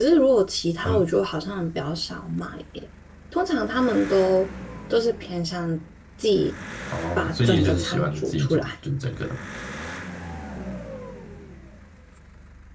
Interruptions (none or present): present